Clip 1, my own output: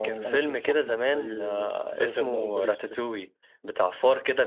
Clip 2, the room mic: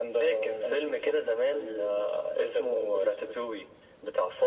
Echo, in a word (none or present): present